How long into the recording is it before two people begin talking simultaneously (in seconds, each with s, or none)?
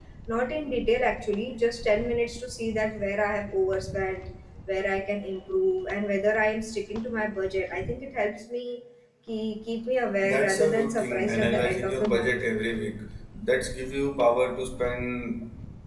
10.2 s